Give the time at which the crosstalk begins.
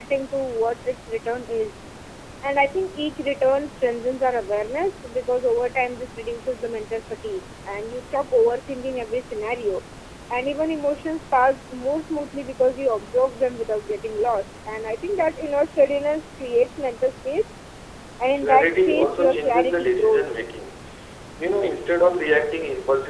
18 s

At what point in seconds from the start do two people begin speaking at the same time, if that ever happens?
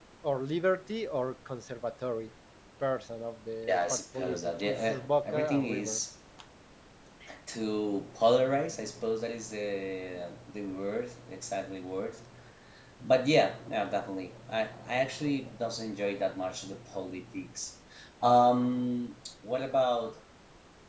4 s

